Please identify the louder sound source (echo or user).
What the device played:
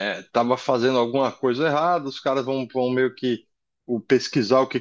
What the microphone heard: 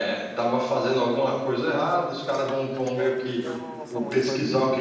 echo